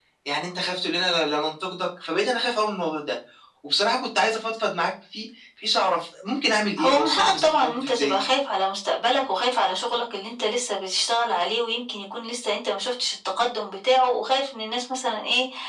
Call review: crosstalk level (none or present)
present